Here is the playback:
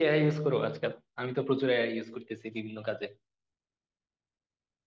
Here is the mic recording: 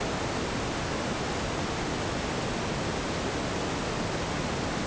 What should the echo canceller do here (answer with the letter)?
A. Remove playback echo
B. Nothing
B